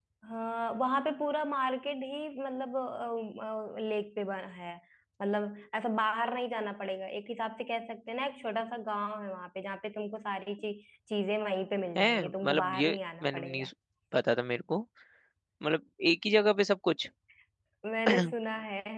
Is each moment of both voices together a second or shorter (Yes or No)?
No